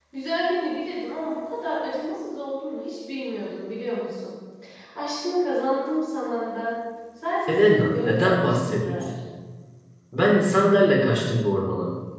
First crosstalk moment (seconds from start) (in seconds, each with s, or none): 7.5 s